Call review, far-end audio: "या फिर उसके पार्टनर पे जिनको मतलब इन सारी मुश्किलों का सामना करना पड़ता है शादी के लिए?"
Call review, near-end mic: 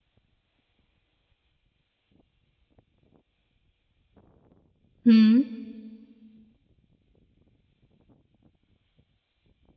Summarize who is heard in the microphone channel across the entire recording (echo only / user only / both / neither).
user only